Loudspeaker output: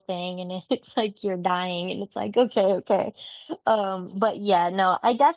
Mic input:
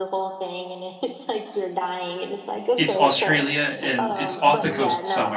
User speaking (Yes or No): Yes